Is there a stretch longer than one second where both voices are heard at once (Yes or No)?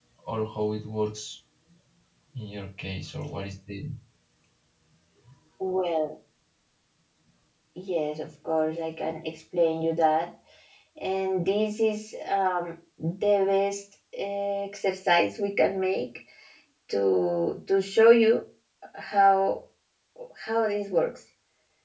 No